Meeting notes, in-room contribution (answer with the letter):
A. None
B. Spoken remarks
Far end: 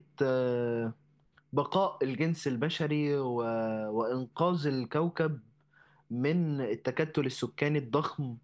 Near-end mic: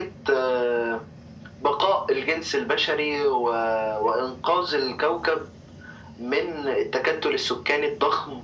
A